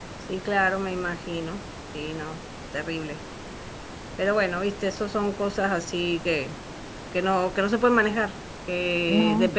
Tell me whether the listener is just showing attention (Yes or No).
Yes